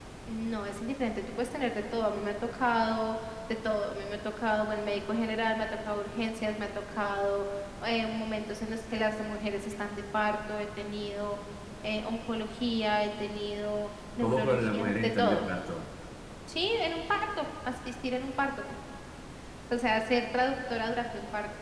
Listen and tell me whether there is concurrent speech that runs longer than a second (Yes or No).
Yes